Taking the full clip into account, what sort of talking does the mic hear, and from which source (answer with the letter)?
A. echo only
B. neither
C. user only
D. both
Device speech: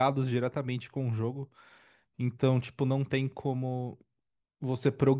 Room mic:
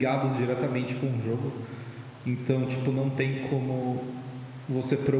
A